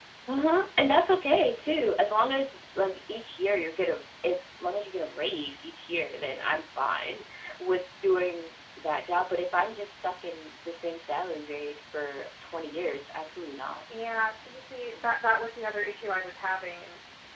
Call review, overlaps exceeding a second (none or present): none